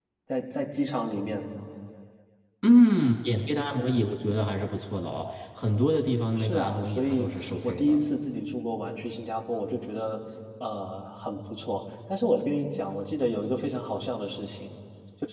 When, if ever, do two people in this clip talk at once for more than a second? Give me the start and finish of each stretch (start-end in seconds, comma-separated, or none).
6.4-8.0